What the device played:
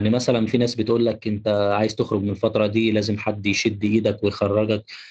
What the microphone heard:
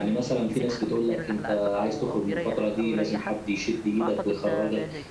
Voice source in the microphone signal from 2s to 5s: both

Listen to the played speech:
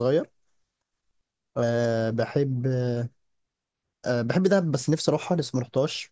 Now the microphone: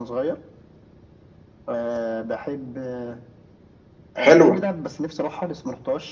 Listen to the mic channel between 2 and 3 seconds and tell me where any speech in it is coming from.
echo only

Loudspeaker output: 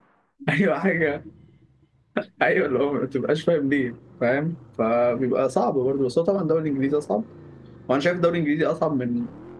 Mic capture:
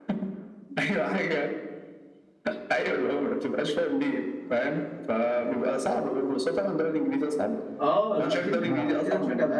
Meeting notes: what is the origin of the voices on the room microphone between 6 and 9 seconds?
both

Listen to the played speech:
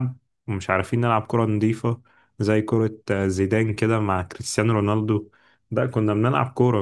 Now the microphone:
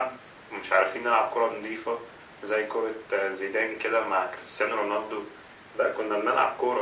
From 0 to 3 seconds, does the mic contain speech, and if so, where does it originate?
echo only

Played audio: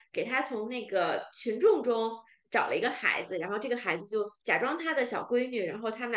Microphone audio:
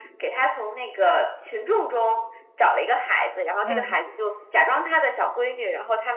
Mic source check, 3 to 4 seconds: both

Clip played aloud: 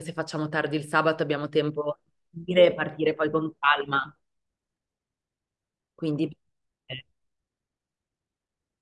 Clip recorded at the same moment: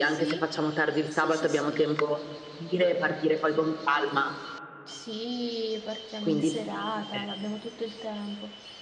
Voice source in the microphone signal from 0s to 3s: both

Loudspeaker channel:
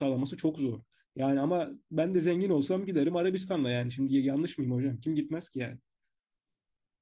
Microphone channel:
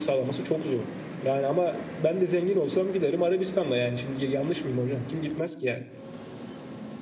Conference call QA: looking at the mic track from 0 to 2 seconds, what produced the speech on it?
echo only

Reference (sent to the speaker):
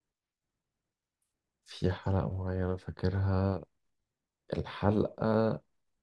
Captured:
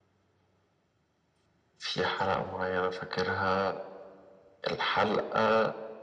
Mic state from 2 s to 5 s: echo only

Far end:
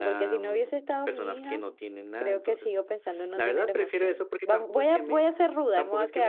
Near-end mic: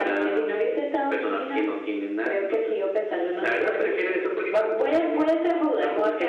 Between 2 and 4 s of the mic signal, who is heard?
echo only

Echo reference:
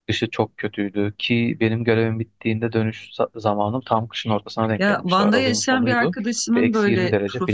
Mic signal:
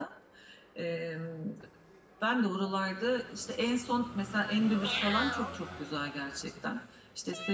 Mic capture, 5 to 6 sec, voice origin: user only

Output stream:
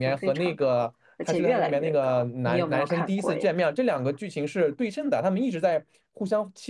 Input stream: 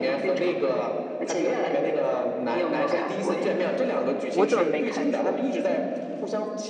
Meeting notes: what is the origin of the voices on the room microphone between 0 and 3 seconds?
echo only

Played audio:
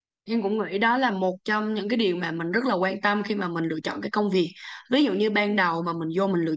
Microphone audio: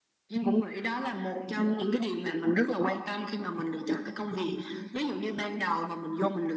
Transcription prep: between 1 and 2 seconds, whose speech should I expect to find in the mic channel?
echo only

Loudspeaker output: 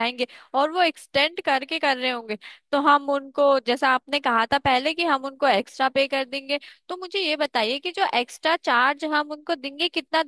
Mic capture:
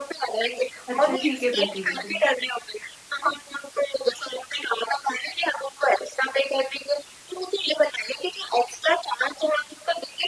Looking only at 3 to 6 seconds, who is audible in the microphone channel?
echo only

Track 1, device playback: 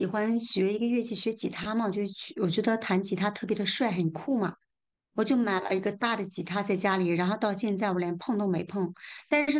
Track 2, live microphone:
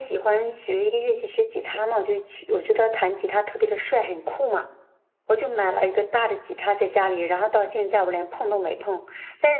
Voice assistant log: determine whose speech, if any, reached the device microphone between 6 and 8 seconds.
echo only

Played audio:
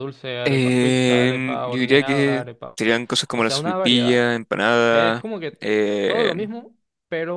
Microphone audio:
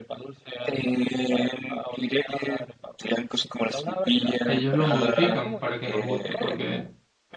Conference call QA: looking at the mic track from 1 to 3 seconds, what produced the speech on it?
echo only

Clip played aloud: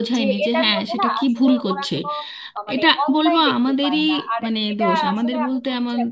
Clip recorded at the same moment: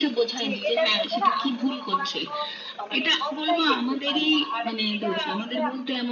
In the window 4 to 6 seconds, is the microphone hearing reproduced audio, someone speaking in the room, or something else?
echo only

